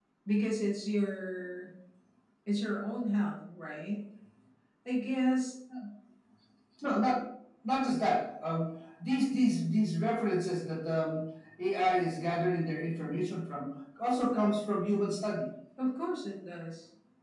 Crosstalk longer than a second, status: none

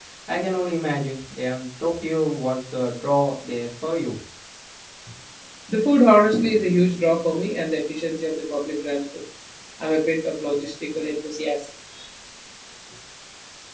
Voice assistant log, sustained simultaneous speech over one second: none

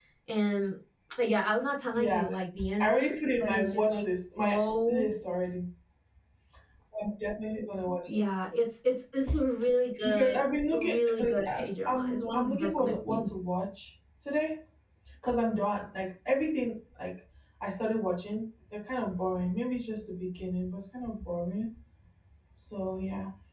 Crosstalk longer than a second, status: present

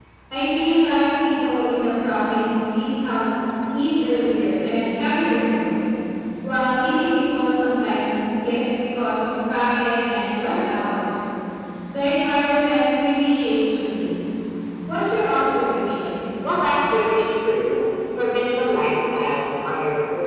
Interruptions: none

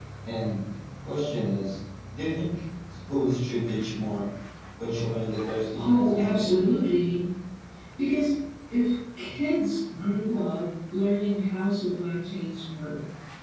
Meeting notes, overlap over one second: present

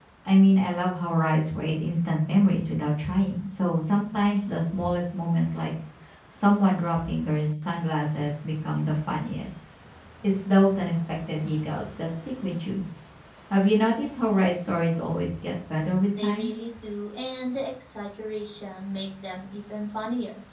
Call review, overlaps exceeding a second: none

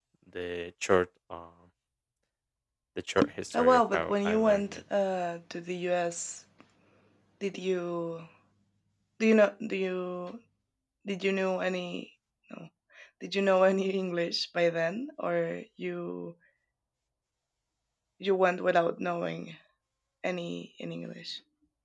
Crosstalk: present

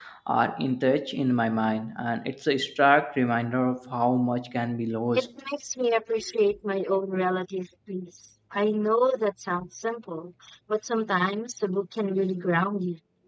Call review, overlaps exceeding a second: none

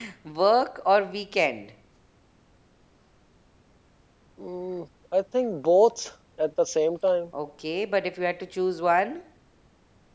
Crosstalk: none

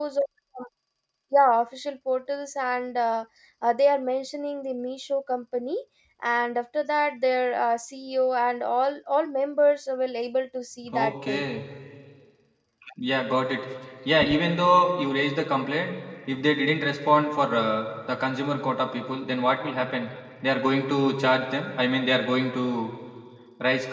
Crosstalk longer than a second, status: none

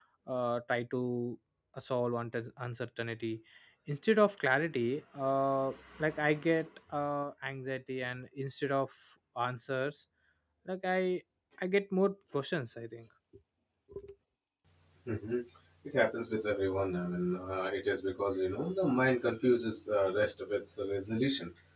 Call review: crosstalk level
none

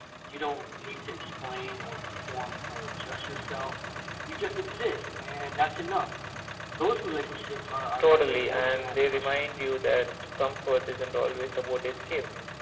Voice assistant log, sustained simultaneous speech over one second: present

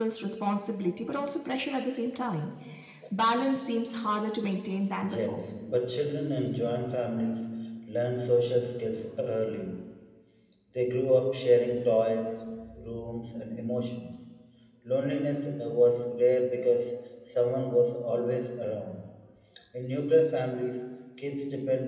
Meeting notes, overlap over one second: none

